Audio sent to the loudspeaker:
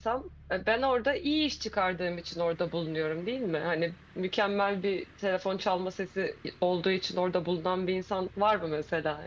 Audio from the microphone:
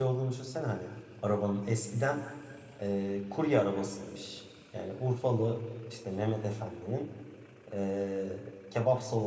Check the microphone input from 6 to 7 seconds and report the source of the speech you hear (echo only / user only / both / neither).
user only